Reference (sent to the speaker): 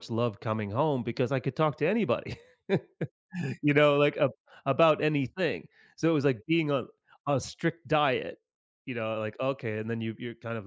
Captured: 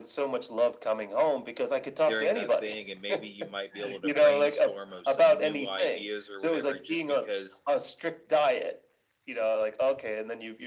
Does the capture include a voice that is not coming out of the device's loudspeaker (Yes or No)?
Yes